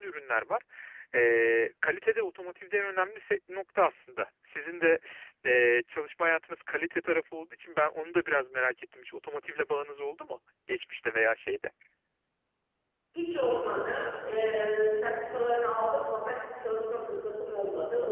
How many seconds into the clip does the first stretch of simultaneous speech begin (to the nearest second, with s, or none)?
none